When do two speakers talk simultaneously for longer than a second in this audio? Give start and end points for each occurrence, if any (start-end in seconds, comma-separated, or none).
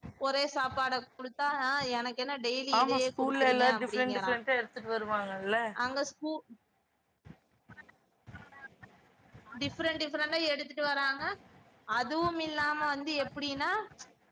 2.8-4.4